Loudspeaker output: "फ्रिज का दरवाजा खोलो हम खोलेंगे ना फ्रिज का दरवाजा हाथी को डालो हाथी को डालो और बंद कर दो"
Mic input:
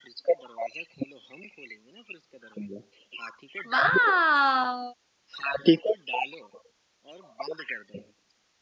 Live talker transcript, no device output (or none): वाह